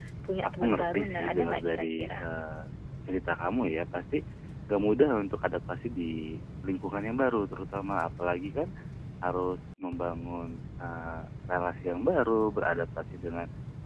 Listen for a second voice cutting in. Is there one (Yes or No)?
Yes